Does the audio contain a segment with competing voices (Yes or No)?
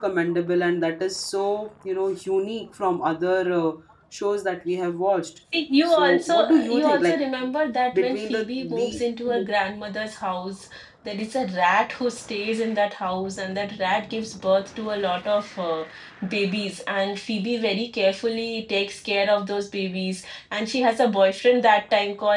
Yes